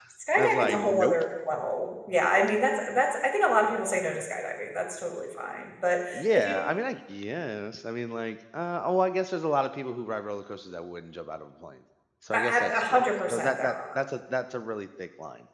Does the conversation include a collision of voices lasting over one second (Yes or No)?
Yes